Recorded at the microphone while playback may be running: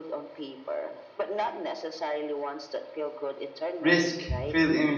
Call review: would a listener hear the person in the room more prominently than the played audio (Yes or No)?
Yes